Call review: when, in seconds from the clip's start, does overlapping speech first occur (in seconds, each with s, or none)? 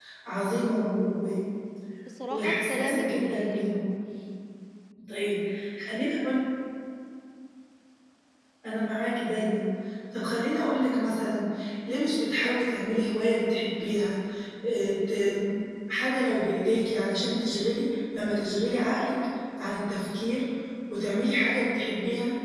2.3 s